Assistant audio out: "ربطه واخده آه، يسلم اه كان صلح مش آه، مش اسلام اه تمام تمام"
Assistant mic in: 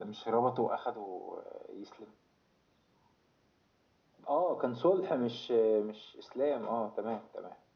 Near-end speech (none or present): none